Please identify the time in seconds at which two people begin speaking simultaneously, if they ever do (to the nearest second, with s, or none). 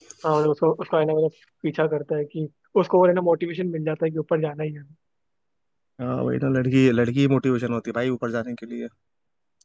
none